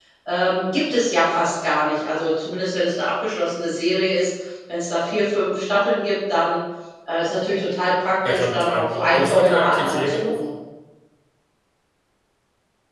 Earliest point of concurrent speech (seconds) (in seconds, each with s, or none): 8.2 s